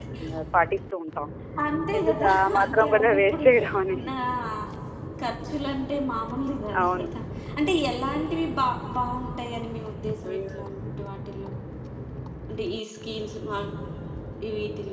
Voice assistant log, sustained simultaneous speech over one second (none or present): present